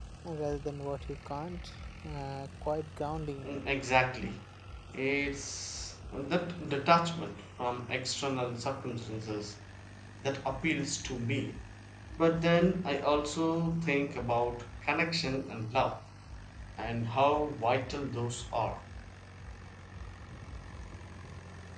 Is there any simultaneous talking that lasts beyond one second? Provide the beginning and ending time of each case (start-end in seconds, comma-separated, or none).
none